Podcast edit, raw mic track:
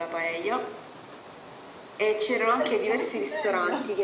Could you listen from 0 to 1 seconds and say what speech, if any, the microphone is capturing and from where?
echo only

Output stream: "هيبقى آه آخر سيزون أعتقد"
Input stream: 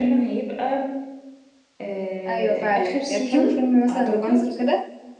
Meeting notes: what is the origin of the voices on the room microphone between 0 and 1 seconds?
both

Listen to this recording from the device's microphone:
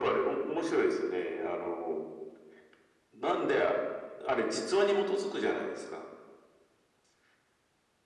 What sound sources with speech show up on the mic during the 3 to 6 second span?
echo only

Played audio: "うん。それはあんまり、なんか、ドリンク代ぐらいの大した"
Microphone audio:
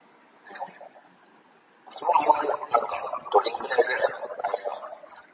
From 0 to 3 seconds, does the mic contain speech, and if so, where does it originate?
echo only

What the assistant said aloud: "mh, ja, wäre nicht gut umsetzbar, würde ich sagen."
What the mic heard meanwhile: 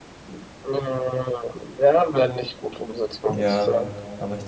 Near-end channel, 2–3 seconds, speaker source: echo only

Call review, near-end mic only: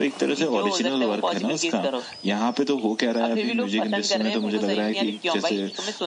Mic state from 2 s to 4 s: echo only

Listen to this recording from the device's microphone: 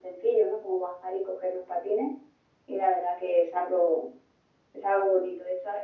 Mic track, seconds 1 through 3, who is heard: user only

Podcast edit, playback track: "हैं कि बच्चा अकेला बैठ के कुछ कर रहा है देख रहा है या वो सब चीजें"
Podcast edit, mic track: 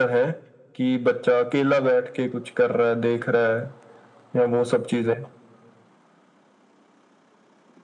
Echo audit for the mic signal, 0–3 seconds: echo only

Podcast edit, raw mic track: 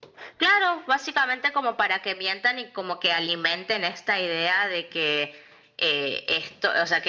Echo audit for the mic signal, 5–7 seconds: echo only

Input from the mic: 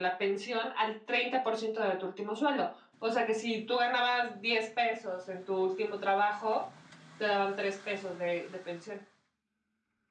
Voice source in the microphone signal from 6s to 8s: echo only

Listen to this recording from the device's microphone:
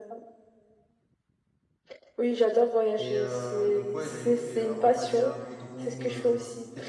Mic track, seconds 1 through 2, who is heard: neither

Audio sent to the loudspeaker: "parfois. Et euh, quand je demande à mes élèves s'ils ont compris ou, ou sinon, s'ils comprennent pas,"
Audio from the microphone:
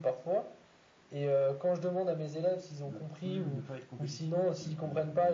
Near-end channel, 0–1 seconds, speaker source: echo only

